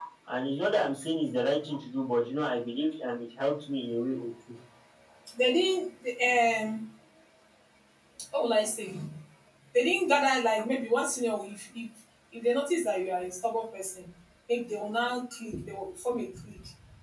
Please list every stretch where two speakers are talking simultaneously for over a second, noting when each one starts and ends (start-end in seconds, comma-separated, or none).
none